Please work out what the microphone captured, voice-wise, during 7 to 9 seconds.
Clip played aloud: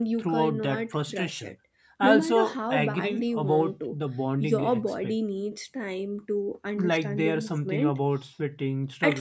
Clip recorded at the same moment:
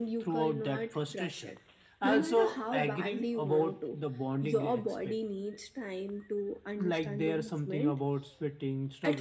echo only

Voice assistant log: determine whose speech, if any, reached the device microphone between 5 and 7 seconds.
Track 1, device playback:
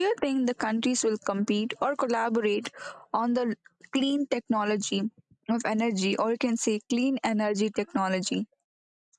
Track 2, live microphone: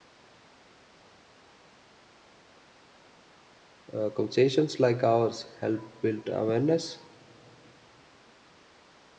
user only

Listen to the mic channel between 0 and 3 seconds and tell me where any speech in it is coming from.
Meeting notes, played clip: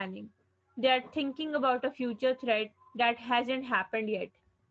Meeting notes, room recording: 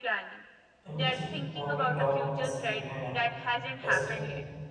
both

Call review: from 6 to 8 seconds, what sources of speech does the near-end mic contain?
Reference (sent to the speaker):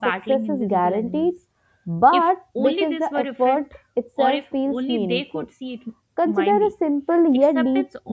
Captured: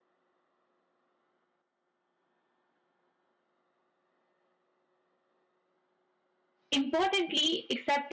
user only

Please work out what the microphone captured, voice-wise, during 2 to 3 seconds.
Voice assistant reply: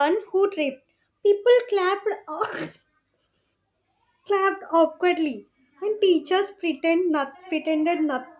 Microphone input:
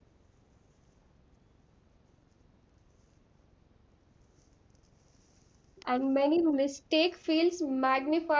neither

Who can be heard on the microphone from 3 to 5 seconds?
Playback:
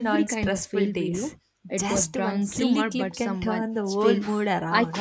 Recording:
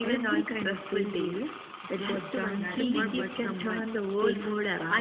both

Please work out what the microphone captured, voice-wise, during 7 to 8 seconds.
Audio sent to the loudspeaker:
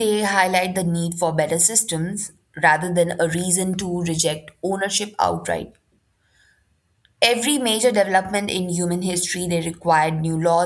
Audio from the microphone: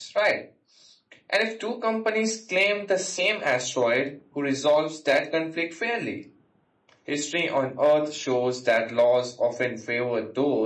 user only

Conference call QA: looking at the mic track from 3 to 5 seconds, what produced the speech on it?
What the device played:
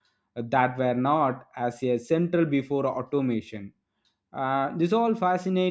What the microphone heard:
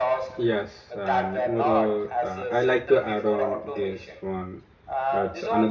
both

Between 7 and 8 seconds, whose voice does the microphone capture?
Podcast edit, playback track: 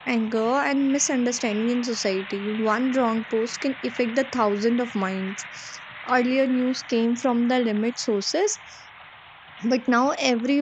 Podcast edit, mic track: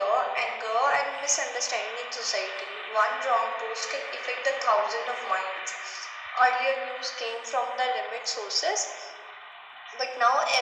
echo only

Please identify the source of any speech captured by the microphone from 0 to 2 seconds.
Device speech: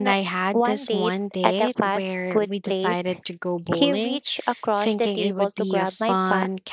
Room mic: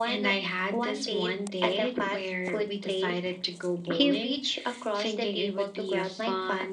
echo only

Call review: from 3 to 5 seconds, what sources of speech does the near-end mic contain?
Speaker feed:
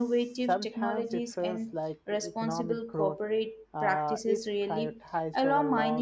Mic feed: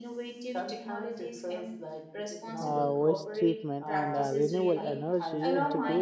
both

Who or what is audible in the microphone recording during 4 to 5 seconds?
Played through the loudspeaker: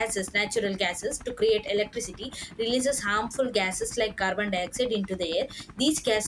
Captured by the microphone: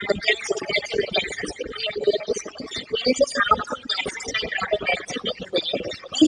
echo only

